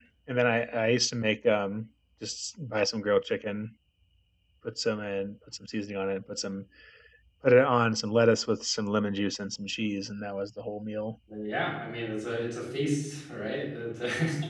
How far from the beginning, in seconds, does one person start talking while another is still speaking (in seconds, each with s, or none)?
none